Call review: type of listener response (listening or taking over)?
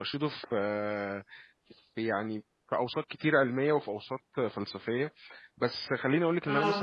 listening